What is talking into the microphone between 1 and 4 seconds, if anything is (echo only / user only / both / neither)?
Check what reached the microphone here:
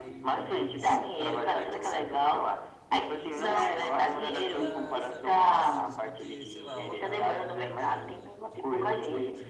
both